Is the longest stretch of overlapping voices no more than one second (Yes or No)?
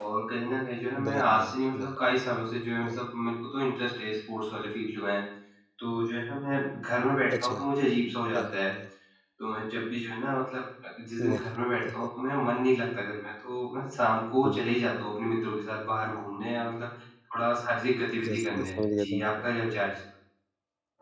No